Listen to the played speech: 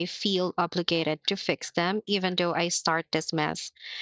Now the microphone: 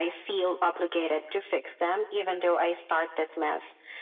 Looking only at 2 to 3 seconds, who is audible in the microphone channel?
echo only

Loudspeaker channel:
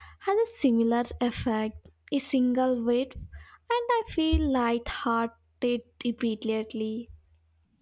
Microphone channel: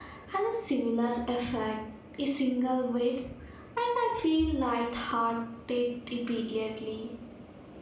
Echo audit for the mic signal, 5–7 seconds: echo only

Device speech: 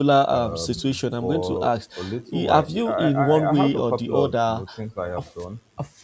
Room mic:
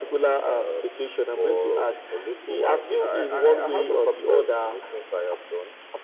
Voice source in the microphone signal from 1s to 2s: echo only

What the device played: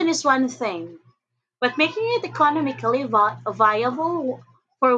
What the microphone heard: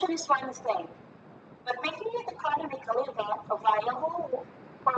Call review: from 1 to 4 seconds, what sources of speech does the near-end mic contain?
echo only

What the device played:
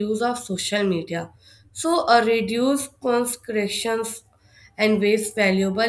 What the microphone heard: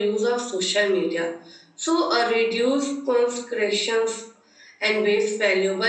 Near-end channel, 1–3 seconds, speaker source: echo only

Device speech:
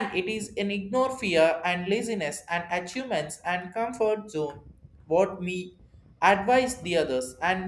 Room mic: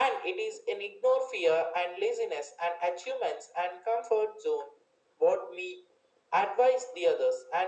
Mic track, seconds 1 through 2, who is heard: echo only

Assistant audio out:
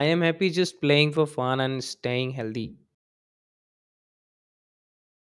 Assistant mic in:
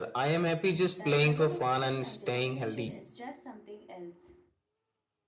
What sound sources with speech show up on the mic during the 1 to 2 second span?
both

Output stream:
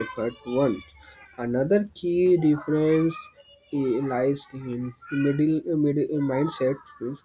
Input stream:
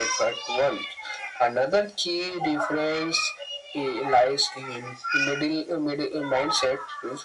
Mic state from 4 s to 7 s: echo only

